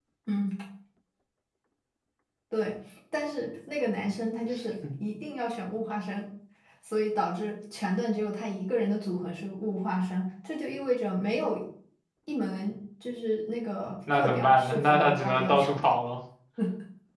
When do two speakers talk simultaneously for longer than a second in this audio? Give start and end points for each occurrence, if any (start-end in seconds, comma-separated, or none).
14.1-15.9